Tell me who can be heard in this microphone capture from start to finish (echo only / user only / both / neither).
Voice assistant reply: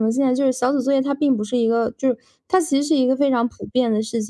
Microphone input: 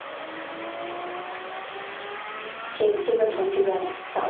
user only